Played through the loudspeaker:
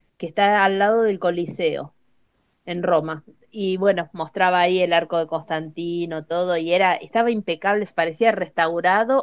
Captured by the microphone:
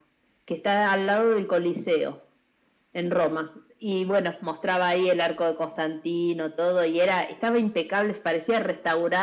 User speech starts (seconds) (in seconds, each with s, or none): none